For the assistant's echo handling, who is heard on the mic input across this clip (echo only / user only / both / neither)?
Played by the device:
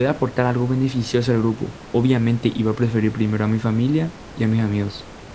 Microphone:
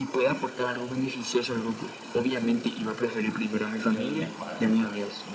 both